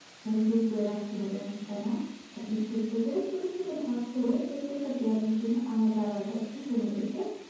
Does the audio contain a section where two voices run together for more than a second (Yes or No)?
No